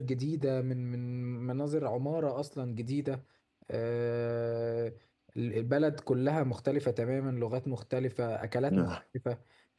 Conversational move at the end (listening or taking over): listening